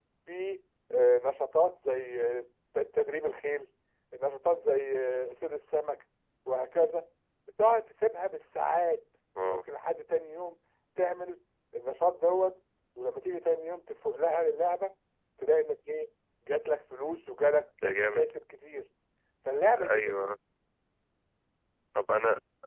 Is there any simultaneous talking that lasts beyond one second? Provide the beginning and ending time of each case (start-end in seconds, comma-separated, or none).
none